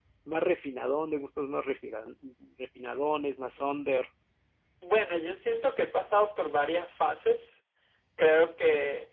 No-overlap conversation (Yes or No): Yes